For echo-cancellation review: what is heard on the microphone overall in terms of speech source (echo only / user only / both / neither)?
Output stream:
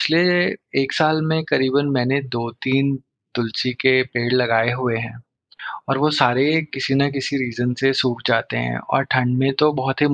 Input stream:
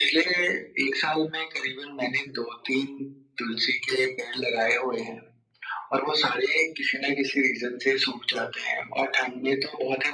echo only